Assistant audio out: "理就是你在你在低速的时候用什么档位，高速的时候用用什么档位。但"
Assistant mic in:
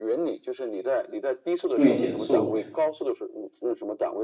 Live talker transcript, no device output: 注意减速，

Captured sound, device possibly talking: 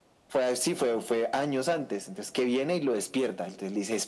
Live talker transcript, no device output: none

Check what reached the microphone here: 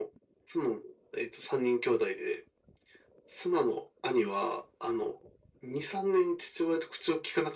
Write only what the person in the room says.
none

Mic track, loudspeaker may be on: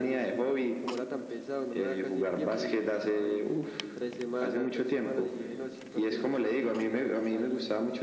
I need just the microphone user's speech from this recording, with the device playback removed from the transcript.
none

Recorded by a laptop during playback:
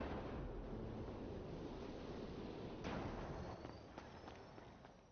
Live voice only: none

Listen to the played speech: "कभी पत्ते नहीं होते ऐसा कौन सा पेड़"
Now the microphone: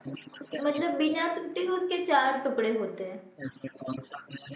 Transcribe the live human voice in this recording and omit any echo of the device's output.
मतलब बिना टूटे उसके चार टुकड़े होते हैं

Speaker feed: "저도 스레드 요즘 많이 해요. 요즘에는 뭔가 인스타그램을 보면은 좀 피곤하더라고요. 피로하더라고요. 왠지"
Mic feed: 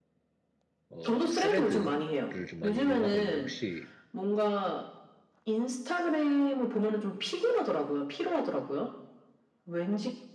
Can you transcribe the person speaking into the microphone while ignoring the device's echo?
어 스레드를 좀 많이 이용하고 있는데 혹시

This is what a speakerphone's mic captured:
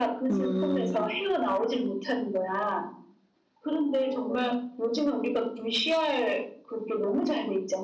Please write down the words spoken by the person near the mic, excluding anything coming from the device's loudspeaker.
음.

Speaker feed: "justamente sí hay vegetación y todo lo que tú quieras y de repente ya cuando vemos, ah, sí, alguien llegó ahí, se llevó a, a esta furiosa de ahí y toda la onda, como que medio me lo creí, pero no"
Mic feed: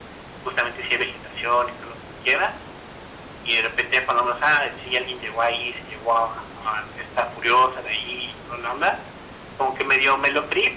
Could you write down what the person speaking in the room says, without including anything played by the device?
none

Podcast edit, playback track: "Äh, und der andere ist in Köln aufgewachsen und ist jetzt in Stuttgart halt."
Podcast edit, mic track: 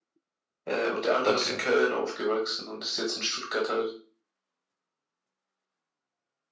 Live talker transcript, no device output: Okay.

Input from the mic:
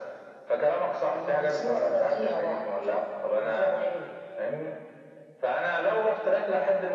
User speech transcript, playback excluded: none

